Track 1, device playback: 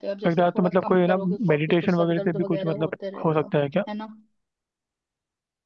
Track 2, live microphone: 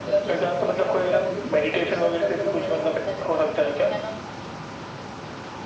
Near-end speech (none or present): none